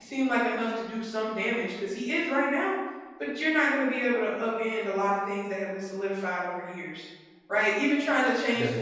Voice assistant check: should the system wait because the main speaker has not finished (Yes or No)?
Yes